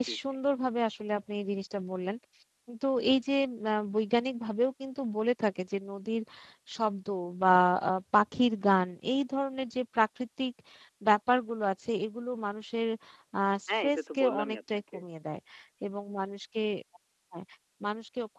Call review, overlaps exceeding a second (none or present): present